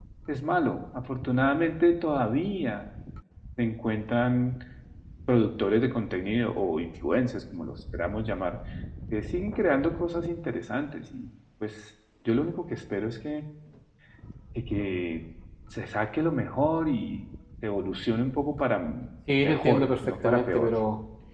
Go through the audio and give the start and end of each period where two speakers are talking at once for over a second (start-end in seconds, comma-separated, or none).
19.4-20.7